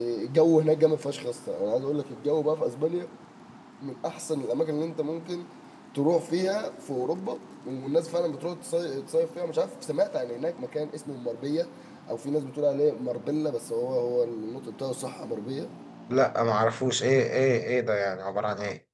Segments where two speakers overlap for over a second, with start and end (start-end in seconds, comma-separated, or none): none